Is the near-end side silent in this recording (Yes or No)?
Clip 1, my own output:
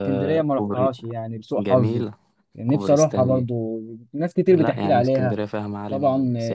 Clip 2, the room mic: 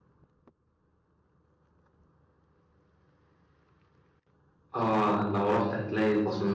No